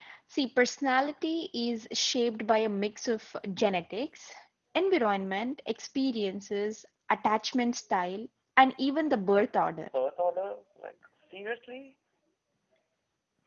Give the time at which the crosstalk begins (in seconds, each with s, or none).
none